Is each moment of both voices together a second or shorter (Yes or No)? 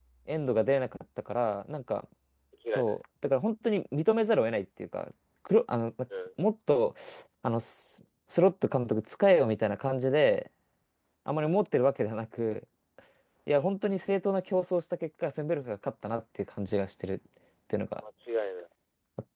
Yes